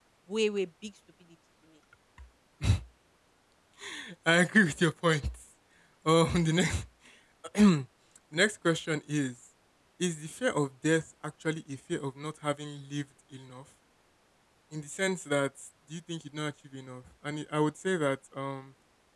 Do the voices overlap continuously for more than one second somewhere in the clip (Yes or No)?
No